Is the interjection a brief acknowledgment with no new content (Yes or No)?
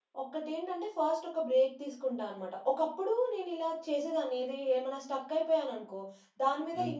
Yes